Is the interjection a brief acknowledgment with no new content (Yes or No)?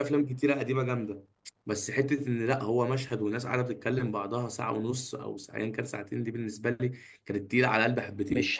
No